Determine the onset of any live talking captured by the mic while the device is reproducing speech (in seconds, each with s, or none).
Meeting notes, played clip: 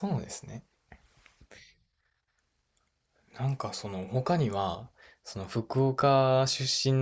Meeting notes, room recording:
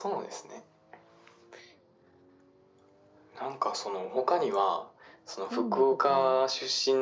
5.4 s